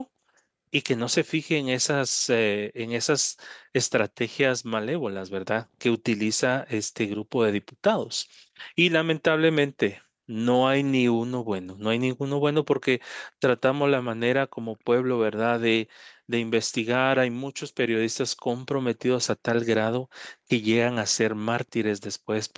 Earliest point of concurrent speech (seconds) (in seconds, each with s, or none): none